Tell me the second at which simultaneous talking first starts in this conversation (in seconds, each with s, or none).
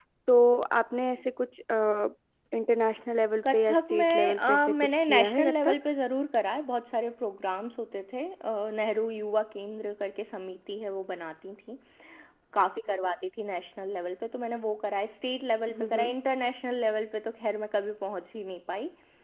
3.5 s